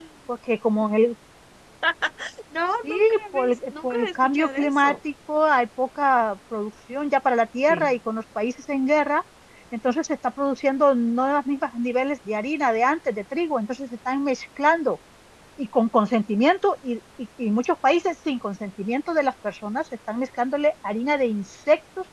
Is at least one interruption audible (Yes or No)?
Yes